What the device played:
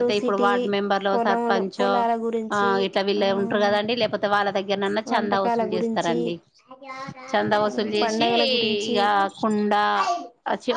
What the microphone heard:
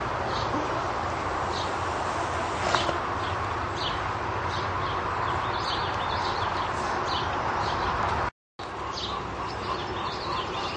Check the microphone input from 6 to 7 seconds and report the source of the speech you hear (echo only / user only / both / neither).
neither